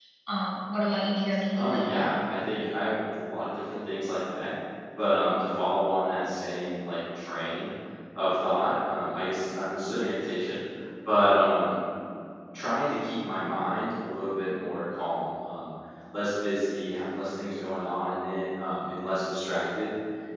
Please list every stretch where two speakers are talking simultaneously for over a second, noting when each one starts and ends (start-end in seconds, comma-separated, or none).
none